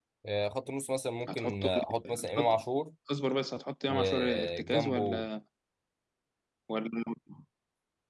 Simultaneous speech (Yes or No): Yes